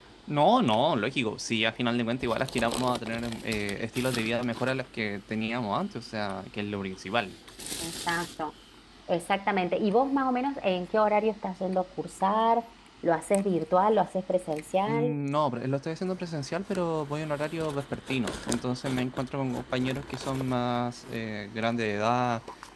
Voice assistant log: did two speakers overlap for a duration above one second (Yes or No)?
No